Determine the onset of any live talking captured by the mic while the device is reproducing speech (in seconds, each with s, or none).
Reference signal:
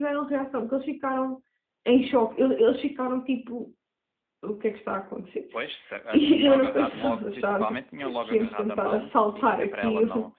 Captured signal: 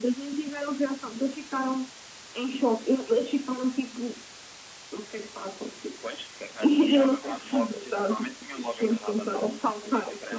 none